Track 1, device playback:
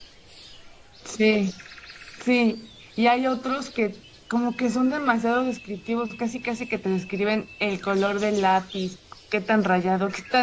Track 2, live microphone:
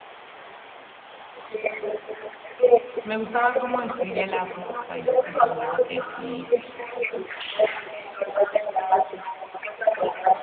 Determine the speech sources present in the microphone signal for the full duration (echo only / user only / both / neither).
both